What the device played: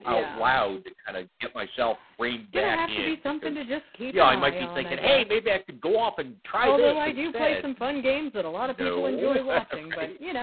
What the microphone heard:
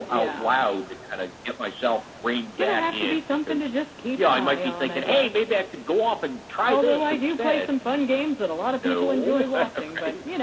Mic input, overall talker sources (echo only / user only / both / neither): echo only